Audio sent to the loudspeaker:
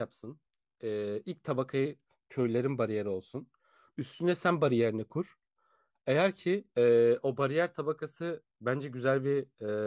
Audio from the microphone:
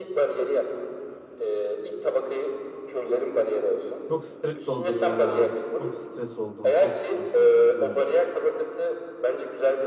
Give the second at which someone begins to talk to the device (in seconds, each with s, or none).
4.1 s